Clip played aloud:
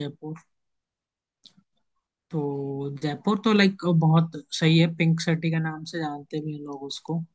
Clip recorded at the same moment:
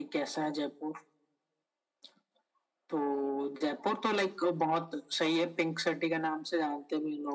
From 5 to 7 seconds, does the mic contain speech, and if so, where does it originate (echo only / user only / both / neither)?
echo only